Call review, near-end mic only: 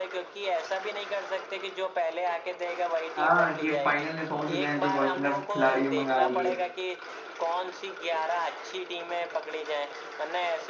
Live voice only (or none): हाँ कि फाइनल में पहुंच गए हैं तो प्रोफेशनल खिलाड़ी मंगा लिए